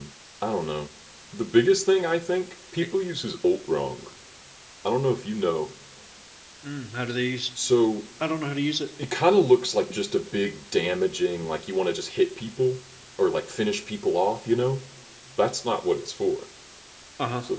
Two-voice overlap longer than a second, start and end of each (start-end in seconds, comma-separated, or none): none